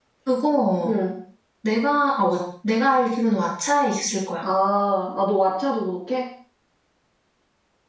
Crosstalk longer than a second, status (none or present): none